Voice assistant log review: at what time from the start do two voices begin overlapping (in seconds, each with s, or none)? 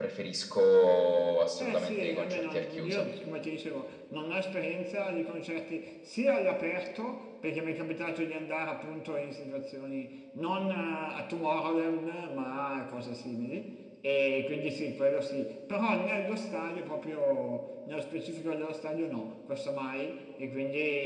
1.6 s